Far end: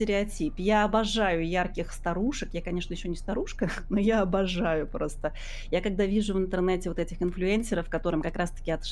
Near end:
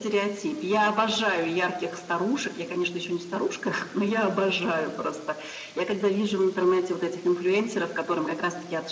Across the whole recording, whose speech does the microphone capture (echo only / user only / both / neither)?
echo only